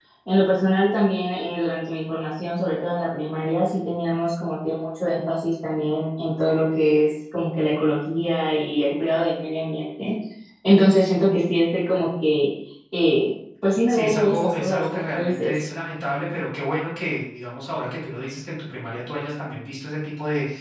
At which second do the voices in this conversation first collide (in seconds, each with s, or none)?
13.9 s